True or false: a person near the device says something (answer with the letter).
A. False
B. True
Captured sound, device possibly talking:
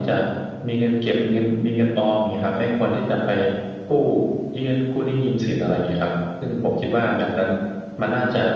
A